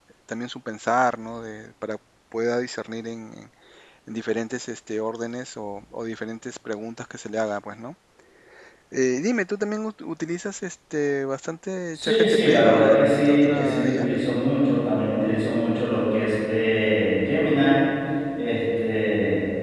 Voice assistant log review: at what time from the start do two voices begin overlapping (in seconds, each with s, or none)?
11.9 s